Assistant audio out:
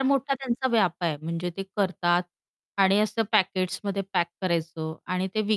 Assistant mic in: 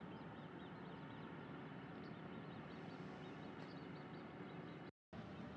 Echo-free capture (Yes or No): Yes